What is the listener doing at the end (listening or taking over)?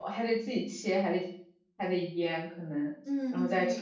taking over